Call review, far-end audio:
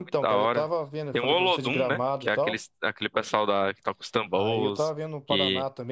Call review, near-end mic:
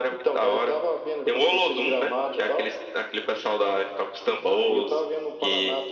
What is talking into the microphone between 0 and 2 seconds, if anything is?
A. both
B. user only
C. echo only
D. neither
C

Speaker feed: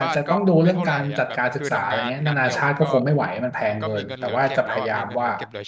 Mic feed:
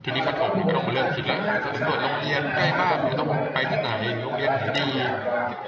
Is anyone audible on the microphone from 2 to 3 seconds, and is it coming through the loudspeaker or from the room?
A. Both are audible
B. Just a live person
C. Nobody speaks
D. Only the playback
A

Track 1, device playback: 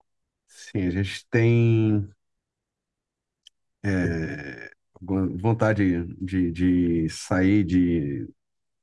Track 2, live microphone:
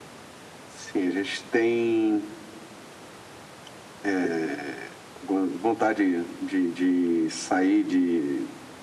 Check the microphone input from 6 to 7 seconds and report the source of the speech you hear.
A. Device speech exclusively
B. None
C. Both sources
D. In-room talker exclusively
A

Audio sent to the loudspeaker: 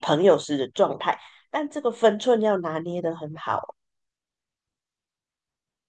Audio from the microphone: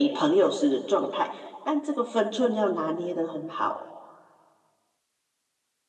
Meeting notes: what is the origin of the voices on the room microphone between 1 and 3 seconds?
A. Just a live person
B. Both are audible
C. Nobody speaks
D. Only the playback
D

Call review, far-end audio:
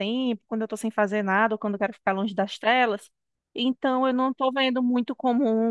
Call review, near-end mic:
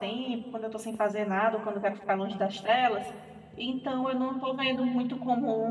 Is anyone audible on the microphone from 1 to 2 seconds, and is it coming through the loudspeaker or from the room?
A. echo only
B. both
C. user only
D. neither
A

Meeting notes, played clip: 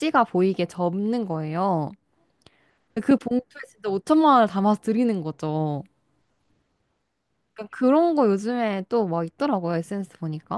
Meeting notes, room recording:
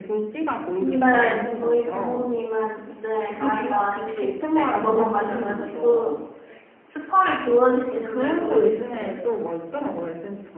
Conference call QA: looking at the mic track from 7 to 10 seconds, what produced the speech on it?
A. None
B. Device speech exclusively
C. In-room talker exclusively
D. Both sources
D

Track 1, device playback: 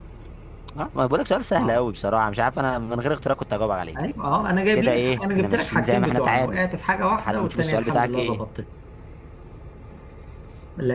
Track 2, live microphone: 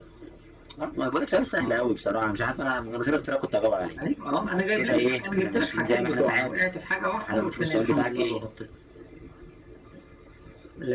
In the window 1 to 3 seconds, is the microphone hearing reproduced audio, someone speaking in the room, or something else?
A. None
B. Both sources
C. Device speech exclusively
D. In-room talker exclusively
C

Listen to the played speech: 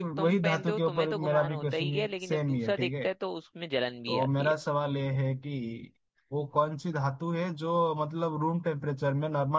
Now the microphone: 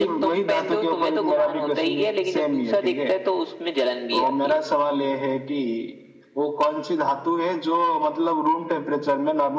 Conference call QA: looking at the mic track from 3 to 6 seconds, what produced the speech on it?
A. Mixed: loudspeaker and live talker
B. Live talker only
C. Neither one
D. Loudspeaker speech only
D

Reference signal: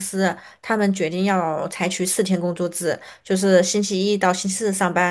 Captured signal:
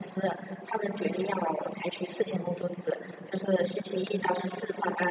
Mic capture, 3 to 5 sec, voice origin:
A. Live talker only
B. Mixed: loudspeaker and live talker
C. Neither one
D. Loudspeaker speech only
D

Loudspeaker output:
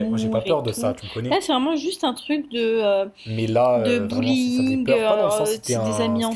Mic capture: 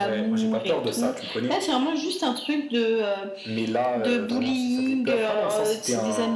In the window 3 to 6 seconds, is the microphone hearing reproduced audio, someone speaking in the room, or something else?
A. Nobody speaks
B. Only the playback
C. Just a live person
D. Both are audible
B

